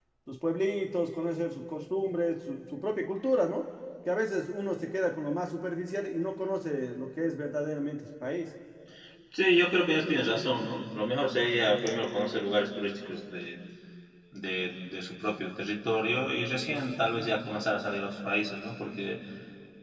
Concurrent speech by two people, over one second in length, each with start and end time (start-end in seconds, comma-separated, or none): none